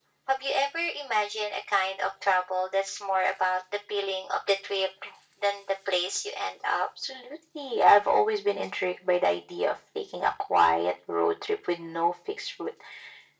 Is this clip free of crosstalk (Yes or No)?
Yes